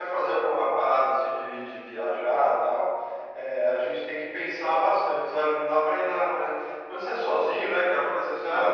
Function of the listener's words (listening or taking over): listening